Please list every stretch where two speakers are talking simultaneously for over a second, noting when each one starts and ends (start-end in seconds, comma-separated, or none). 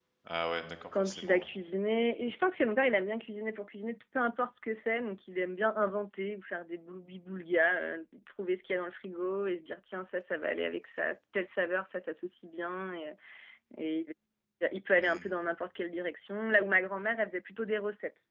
none